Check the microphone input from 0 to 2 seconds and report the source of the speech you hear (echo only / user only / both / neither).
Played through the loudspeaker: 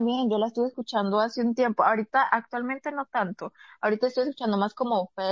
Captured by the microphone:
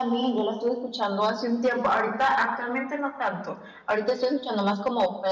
echo only